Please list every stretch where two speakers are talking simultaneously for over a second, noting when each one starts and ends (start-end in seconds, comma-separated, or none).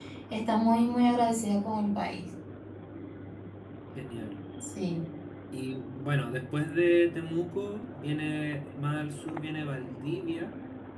none